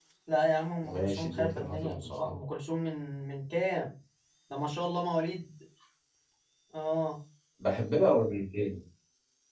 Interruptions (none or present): present